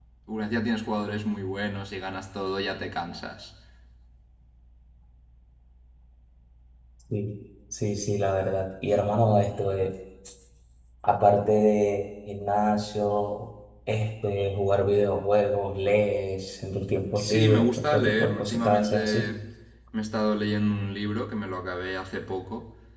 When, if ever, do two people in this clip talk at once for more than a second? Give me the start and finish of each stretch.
17.1-19.3

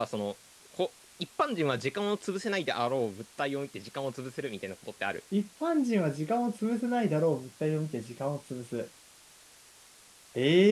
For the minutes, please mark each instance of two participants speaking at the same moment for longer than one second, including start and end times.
none

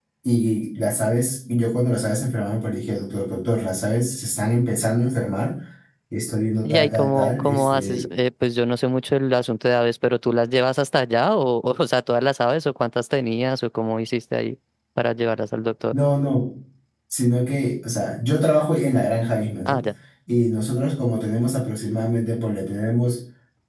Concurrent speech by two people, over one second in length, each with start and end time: 6.6-8.0

